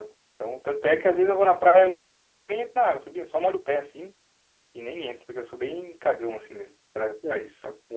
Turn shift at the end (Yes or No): Yes